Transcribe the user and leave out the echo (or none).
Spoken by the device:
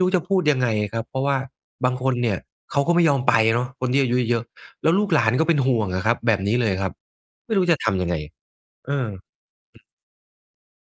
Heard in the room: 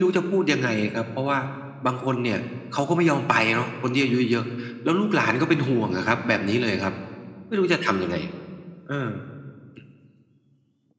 none